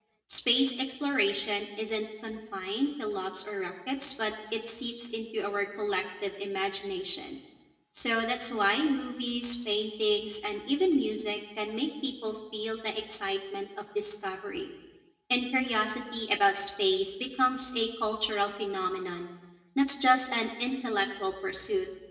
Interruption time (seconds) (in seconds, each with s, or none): none